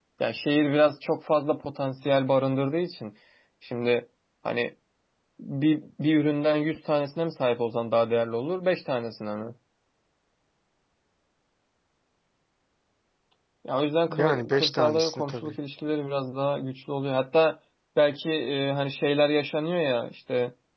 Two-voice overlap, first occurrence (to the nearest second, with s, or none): 14 s